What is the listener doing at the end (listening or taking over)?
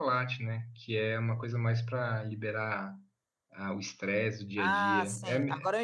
taking over